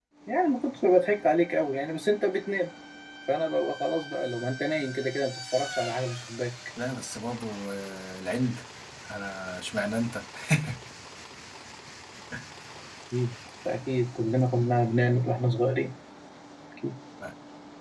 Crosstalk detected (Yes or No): No